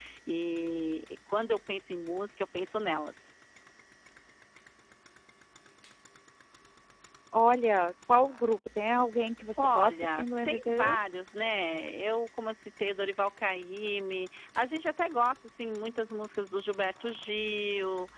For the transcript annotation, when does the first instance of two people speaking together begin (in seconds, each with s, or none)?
9.6 s